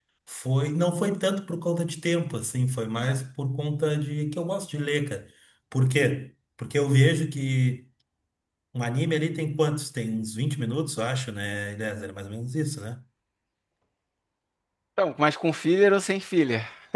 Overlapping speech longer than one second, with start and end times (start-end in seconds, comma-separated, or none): none